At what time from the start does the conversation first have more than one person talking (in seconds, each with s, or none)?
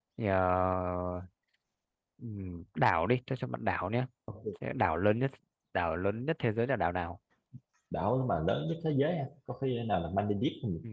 none